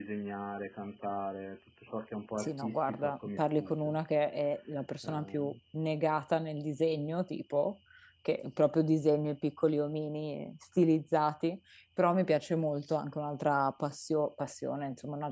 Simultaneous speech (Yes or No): Yes